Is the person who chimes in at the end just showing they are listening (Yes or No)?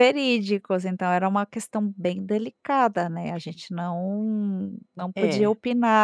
Yes